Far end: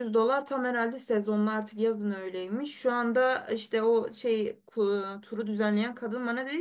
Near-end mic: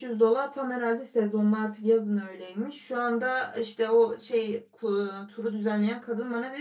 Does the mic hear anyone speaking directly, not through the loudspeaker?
No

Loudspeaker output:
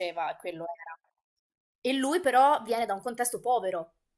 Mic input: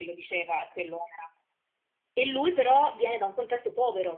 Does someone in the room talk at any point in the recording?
No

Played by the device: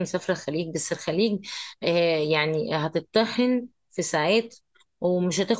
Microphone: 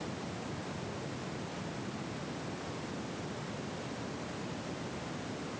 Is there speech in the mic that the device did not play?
No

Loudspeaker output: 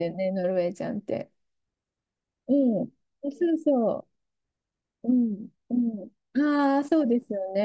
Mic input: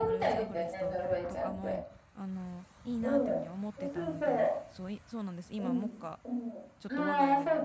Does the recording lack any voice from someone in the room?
No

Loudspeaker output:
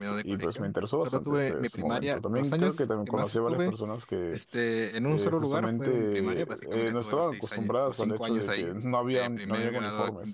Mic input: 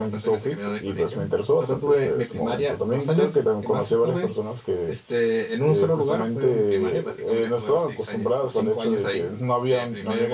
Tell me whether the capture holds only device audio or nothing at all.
Yes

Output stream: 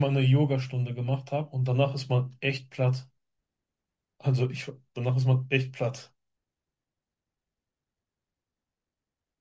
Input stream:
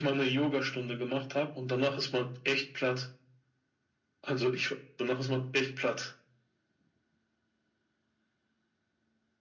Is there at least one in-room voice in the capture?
No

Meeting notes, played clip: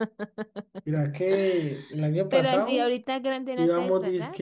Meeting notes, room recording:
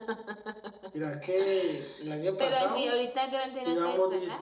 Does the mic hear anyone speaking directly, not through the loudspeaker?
No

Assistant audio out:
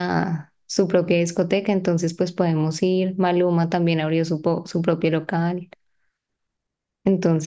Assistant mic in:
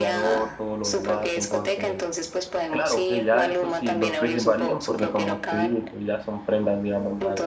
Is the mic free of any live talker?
No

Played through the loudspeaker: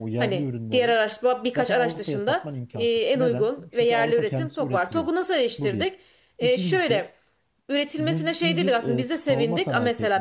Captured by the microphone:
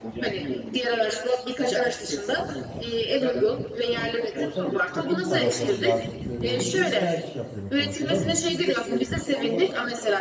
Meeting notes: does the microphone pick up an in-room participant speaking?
Yes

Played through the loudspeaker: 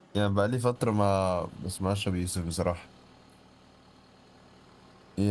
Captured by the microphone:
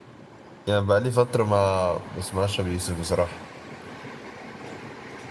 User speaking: No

